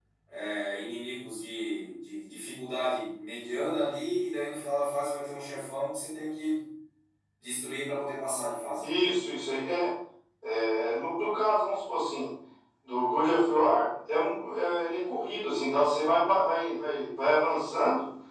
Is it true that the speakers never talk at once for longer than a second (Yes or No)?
Yes